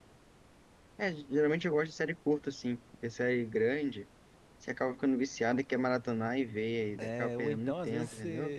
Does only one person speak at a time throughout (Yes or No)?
No